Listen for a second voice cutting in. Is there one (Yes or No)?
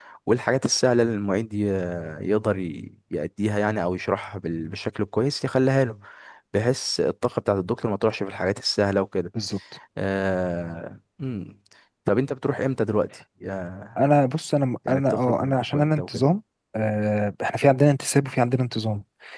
Yes